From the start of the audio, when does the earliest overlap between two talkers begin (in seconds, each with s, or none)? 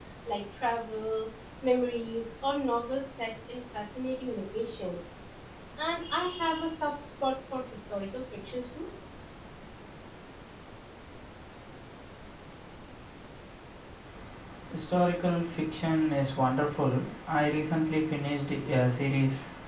none